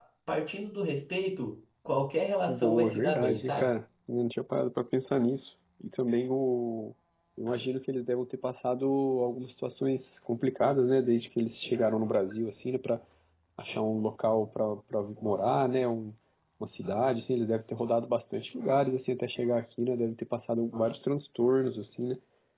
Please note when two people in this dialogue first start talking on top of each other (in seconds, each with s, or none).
2.5 s